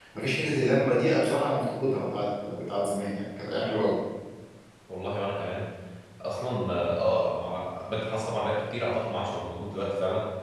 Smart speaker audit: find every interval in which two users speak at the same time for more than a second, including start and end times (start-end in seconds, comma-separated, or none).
none